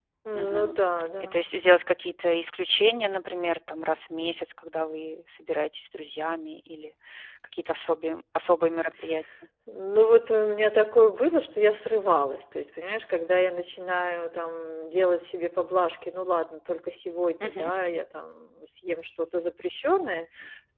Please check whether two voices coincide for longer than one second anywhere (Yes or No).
No